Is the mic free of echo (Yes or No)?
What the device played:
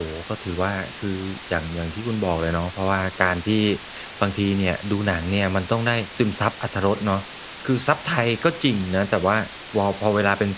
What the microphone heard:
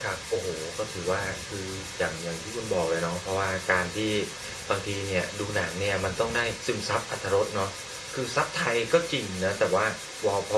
No